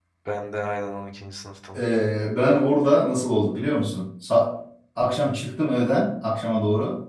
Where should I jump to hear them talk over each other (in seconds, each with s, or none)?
none